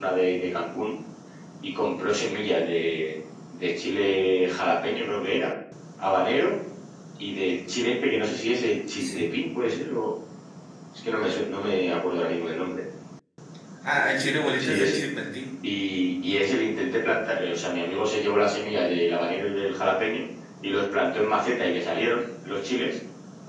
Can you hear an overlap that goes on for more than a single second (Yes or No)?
No